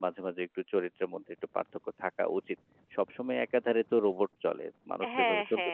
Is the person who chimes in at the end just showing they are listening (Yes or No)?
No